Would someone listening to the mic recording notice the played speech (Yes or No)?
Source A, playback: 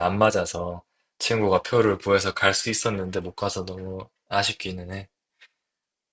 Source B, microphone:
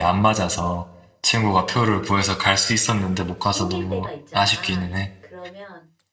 Yes